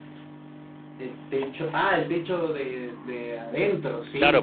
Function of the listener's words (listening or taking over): taking over